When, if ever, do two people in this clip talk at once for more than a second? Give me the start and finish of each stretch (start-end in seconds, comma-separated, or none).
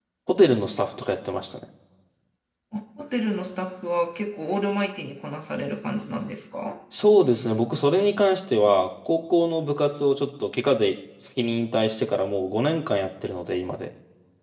none